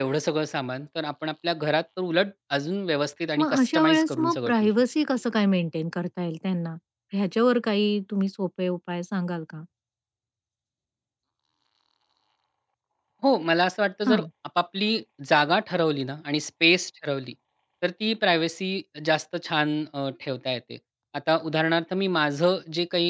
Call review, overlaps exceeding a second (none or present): present